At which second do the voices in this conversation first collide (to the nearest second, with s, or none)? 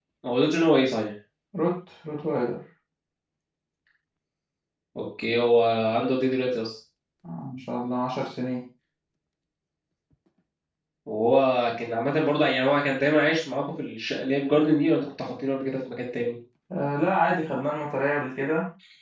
none